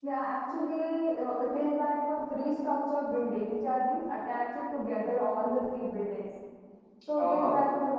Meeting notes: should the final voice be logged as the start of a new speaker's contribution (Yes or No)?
No